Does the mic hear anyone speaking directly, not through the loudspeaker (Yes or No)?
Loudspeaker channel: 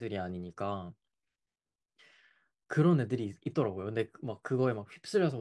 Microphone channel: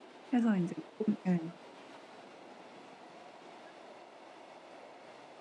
Yes